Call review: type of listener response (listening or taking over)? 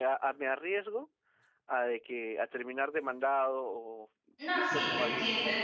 taking over